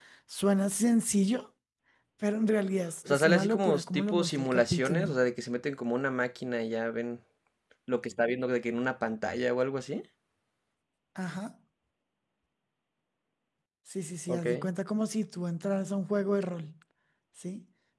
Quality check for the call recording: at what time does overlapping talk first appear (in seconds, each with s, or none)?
3.1 s